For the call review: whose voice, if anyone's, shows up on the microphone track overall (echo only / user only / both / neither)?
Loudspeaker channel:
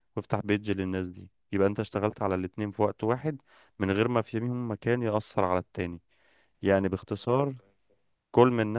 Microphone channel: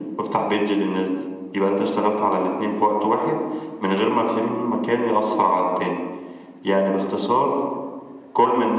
echo only